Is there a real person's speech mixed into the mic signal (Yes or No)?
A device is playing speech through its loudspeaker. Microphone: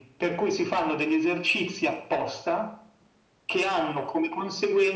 No